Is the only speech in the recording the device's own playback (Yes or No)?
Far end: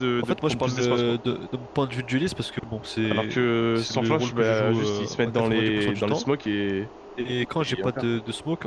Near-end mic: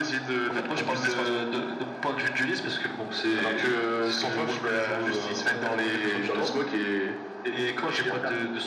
Yes